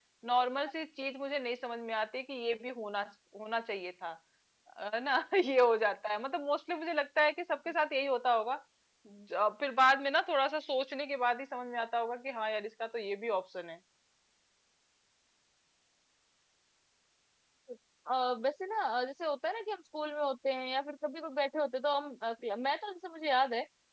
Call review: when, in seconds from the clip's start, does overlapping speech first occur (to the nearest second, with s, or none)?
none